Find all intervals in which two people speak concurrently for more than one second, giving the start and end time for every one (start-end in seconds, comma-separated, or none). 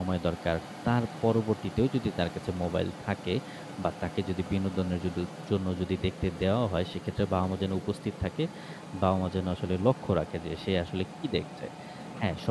none